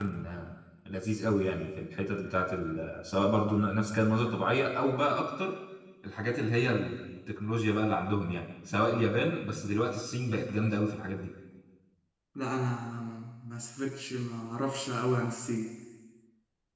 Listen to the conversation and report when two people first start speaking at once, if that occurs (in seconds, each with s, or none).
none